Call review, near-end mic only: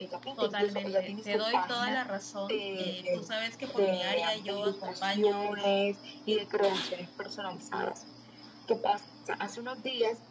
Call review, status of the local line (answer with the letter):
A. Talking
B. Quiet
A